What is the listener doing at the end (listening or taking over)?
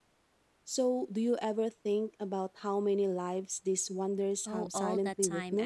taking over